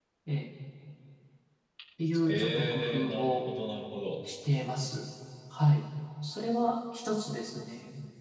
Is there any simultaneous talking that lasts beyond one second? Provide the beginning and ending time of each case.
2.3-3.5

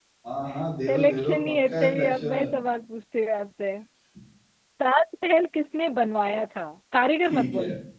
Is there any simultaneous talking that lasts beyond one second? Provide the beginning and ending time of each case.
0.9-2.3

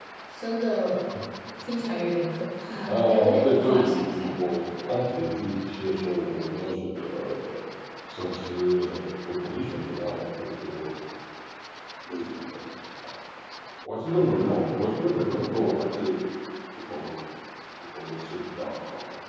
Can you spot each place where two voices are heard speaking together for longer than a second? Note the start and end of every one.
2.9-4.4

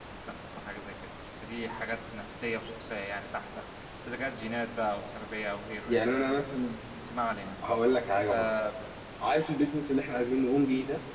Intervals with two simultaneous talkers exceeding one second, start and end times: none

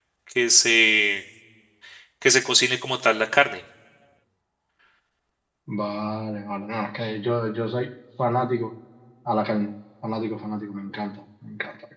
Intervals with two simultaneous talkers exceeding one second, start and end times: none

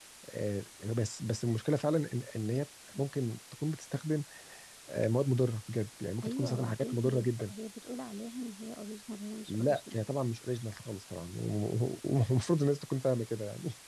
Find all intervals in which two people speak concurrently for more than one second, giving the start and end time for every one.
6.2-7.5

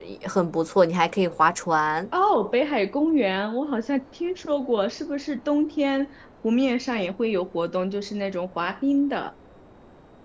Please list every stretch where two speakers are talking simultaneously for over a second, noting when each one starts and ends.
none

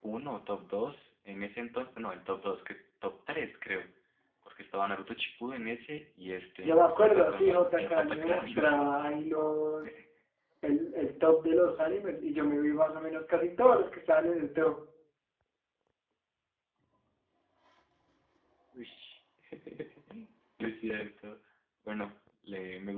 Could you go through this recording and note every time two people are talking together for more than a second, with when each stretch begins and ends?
6.6-8.8

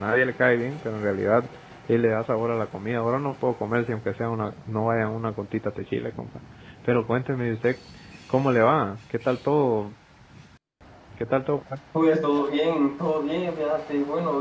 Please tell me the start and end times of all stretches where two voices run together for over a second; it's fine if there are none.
none

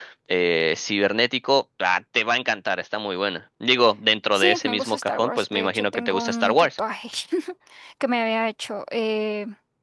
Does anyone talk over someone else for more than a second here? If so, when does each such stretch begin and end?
4.3-6.7

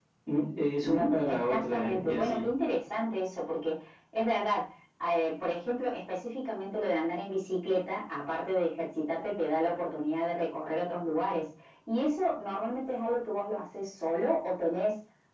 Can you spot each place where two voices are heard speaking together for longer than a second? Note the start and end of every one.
0.8-2.4

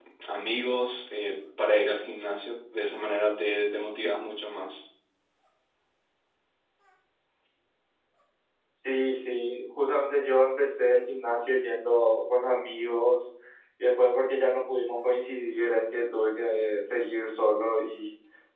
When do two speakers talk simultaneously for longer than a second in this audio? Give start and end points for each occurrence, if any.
none

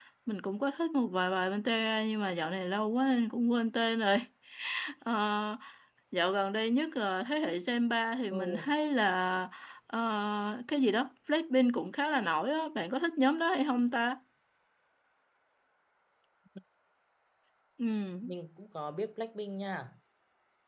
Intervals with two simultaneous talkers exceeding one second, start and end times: none

